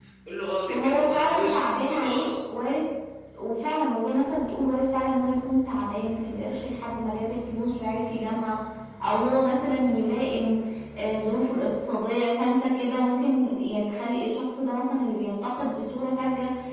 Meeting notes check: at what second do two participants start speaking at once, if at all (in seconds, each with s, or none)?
0.7 s